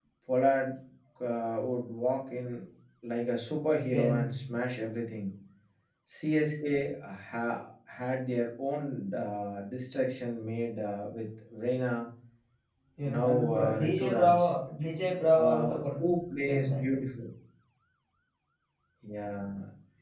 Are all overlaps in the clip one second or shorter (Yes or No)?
No